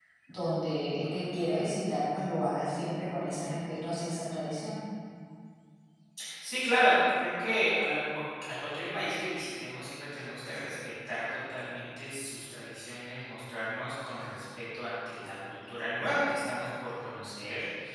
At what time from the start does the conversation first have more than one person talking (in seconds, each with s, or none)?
none